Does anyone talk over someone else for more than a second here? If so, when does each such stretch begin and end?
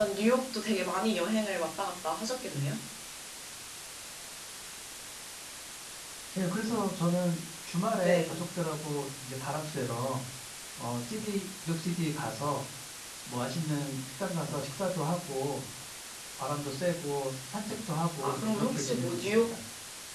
18.2-19.5

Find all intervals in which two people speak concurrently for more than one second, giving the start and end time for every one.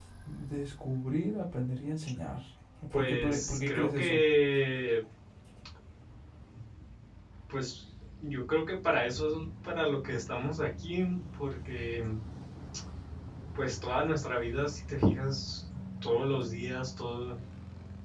2.9-4.2

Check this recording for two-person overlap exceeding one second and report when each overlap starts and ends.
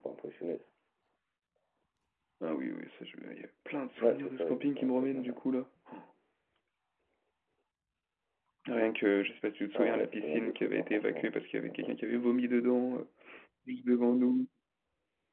4.0-5.4, 9.8-11.9

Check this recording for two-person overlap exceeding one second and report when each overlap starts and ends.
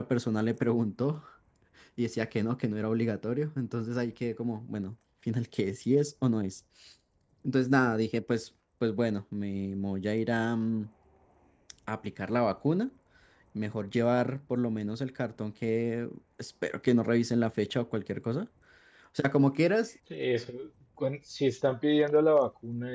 none

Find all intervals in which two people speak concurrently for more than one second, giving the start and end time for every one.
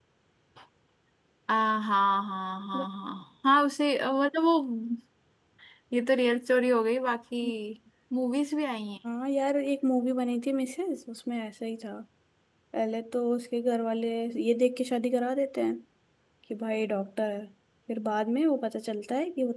none

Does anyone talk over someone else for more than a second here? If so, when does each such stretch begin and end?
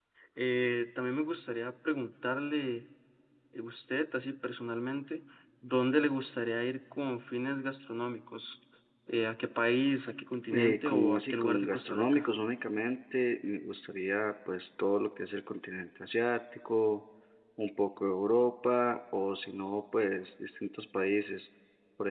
10.5-12.3

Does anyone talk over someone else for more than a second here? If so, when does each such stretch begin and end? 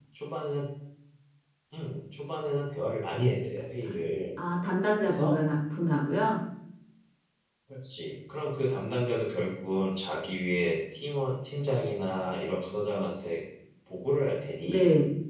none

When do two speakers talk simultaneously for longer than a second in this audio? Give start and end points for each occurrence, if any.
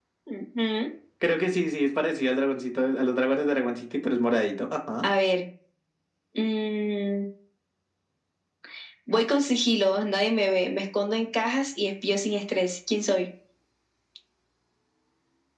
none

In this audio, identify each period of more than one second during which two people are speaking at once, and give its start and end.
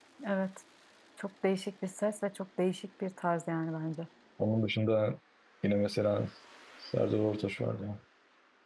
none

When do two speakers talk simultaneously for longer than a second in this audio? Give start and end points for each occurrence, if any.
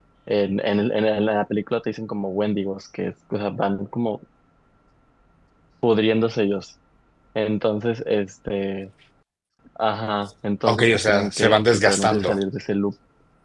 10.7-12.4

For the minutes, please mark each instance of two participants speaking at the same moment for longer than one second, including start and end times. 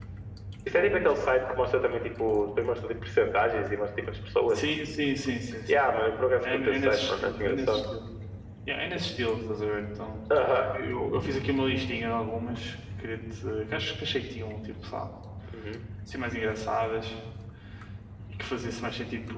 6.4-7.8

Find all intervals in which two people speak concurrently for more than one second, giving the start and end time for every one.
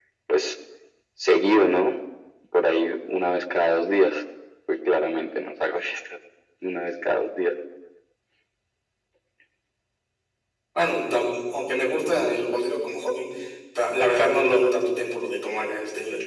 none

